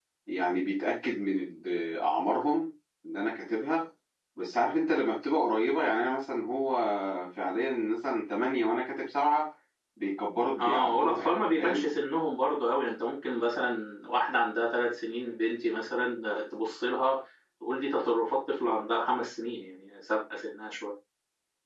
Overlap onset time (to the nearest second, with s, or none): 11 s